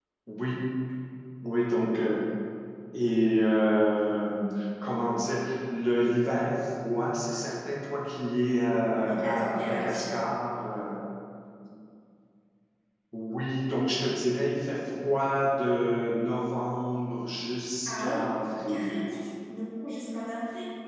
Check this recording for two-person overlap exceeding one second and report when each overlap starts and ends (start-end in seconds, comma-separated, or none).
8.9-10.2